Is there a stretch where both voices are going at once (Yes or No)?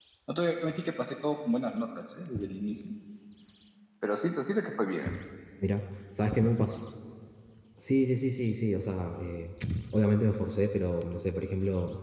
No